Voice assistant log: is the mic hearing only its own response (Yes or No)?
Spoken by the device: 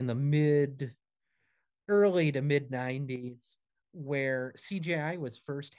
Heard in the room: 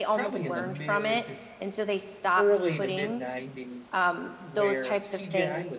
No